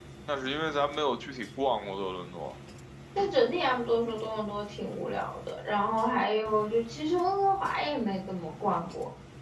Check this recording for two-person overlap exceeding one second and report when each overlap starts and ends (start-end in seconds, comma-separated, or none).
none